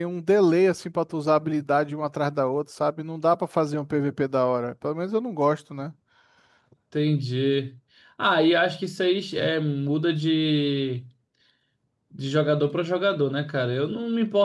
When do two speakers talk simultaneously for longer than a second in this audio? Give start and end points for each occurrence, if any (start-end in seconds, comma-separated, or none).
none